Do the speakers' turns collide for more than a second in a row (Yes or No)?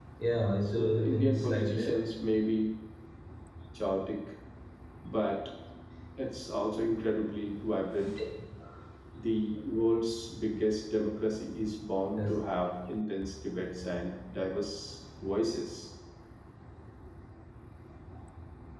Yes